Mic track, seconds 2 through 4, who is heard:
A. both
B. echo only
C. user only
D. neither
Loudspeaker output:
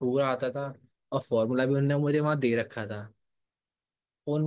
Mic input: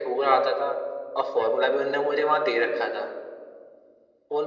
B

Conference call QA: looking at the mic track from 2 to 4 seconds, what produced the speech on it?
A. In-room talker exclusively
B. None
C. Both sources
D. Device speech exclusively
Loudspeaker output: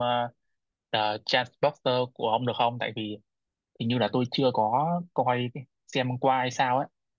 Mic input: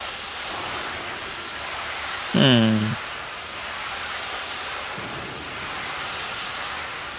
A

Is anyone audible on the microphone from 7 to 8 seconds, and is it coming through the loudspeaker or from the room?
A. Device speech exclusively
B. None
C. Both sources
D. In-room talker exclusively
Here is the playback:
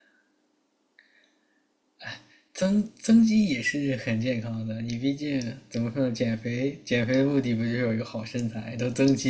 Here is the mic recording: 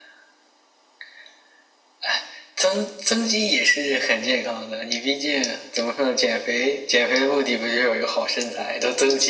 A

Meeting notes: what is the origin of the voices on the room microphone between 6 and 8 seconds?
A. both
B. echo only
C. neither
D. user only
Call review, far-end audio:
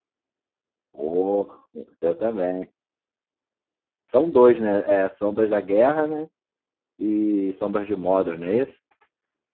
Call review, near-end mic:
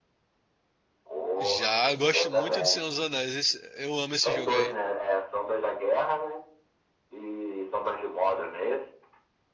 B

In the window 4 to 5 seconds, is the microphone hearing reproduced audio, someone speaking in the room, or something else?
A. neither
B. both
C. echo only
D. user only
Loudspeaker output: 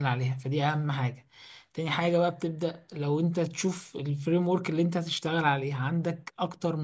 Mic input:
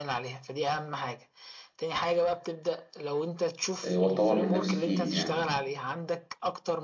B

